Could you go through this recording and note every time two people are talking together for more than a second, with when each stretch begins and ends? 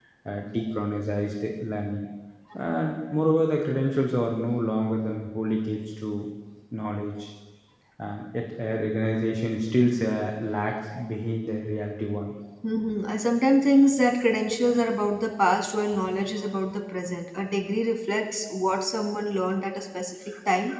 none

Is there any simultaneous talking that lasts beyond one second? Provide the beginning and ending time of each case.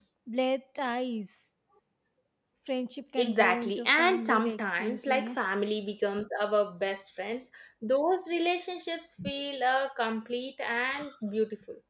3.2-5.4

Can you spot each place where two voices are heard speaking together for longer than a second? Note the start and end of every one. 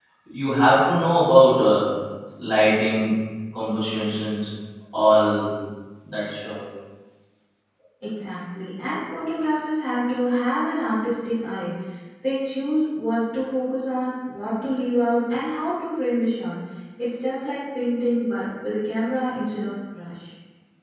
none

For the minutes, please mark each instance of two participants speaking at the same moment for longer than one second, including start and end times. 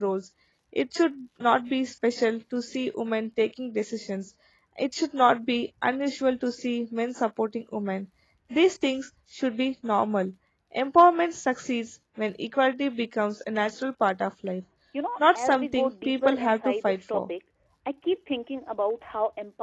15.3-17.2

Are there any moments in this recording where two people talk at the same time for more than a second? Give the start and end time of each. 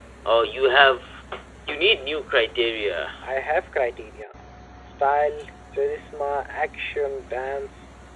none

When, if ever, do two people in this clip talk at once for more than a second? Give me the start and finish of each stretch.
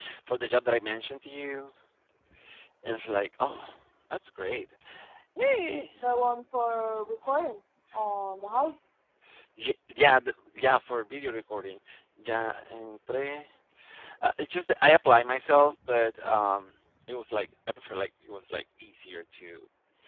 none

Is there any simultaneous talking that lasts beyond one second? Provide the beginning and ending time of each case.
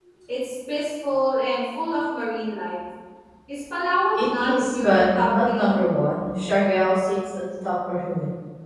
4.2-5.8

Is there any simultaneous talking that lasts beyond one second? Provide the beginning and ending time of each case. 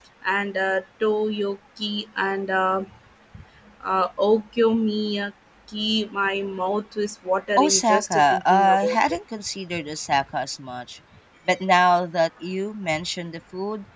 7.6-9.0

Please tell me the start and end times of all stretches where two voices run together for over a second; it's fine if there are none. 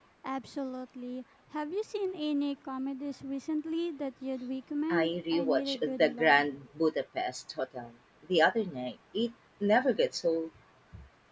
4.9-6.5

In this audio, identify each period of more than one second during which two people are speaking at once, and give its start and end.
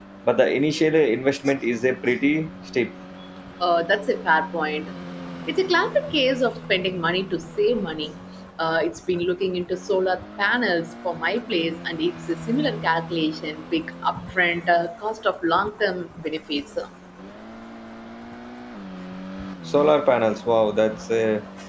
none

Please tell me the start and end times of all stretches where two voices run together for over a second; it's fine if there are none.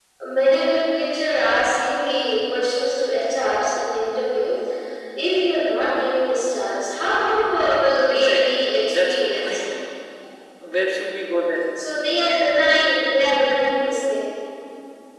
8.0-9.5

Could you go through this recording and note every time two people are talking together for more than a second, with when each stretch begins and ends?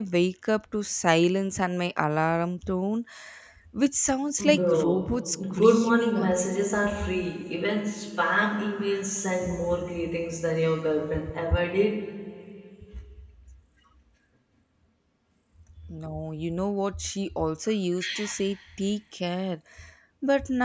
4.5-6.6

